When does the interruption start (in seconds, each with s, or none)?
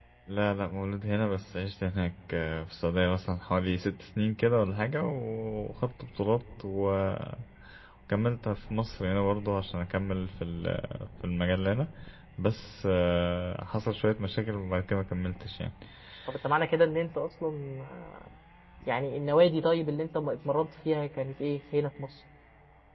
none